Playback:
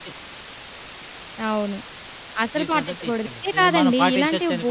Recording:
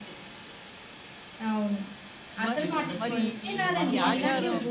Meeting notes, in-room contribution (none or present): present